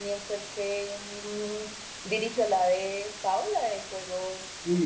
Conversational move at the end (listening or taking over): taking over